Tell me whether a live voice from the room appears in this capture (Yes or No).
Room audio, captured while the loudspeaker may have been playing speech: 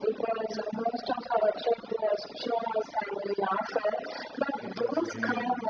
Yes